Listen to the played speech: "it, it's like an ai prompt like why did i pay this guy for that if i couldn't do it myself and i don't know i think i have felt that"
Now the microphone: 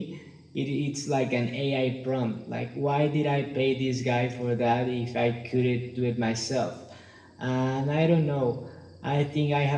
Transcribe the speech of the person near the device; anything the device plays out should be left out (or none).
none